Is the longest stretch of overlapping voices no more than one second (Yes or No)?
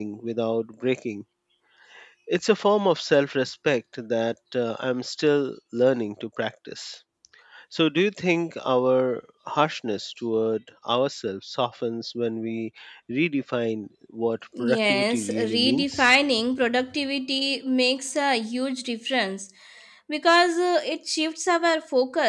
No